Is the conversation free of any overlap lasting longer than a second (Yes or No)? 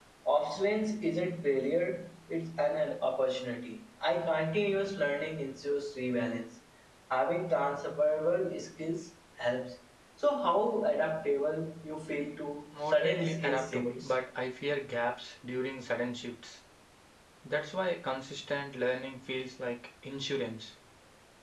No